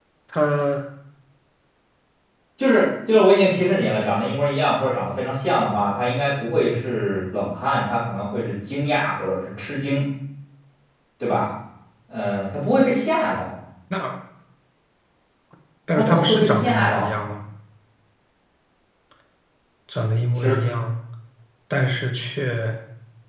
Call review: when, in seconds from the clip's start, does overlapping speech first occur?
16.0 s

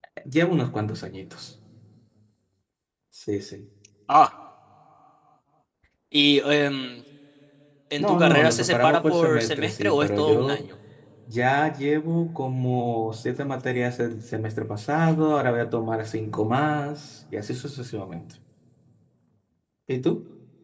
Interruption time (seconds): 8.0 s

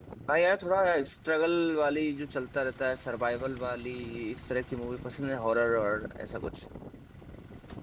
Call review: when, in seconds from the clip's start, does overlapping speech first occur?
none

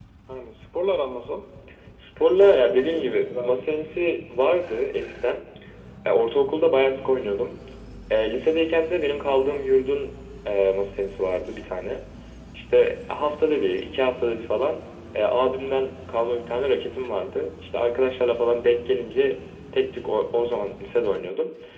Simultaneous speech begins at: 2.4 s

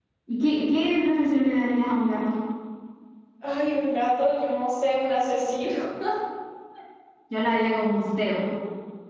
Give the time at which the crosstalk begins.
none

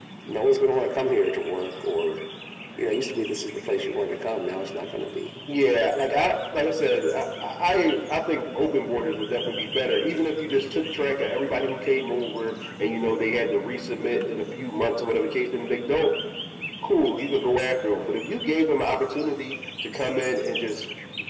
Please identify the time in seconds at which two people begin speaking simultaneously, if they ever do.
none

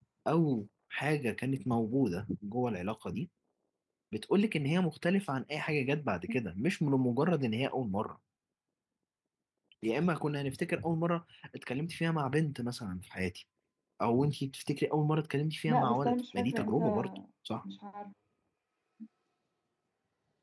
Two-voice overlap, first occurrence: 15.7 s

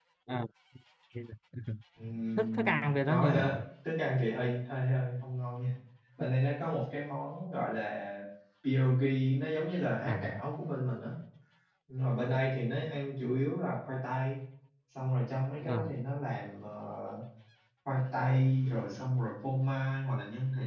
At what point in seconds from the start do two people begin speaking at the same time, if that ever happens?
2.4 s

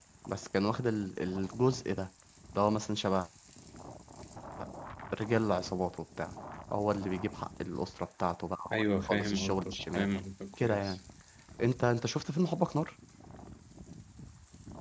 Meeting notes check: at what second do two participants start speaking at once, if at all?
8.7 s

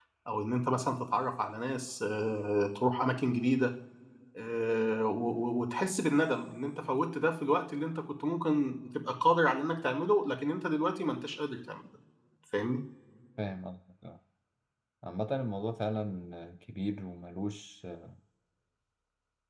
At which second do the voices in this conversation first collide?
none

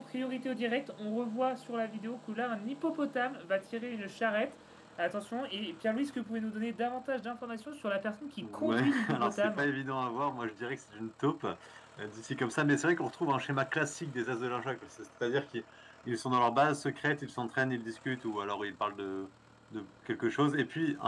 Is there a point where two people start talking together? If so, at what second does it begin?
8.4 s

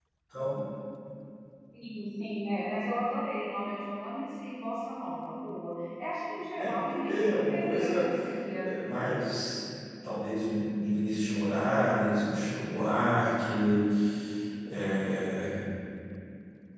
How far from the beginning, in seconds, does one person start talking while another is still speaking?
6.6 s

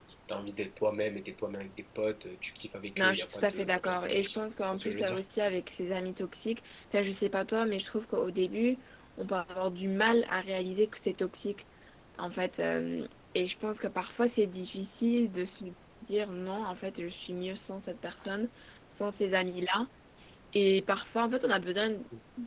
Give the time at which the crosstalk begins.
3.0 s

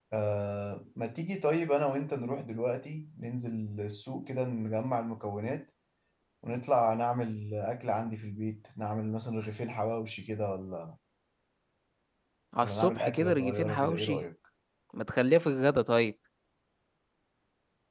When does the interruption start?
12.6 s

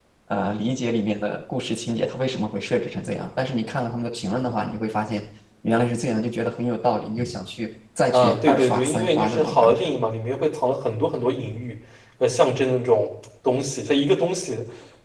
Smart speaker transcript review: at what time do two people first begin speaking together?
8.1 s

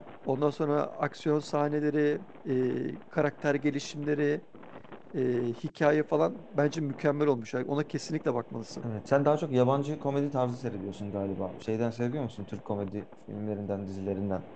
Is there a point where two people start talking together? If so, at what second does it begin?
none

